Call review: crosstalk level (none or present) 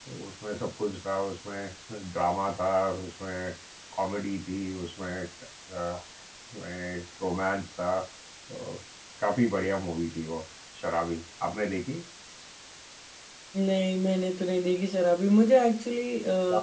none